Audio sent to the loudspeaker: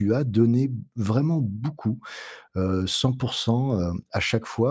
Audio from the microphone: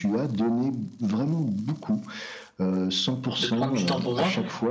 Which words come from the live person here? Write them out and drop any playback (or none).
de prendre du temps pour moi